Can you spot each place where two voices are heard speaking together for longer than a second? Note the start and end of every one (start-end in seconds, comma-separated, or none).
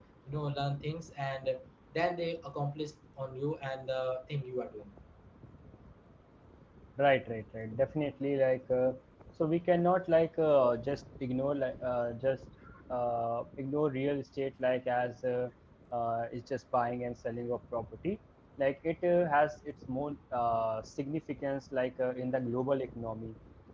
none